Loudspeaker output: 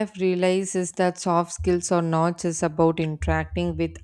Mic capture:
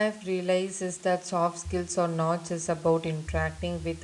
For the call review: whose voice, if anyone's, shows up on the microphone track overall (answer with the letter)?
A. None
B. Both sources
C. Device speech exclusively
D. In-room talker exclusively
C